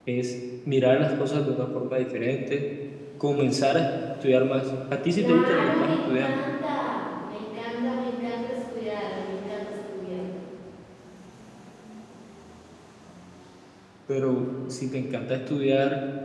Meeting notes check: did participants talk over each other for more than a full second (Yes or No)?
Yes